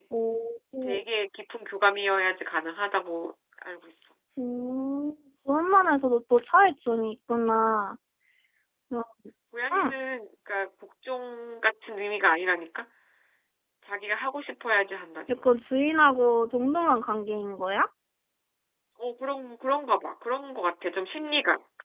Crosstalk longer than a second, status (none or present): none